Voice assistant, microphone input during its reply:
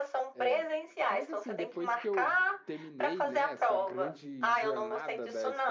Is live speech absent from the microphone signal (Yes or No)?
No